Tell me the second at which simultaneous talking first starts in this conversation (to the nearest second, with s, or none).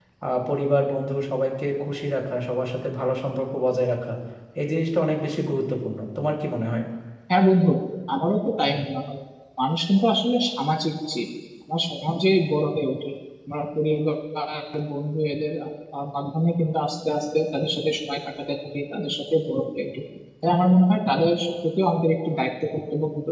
none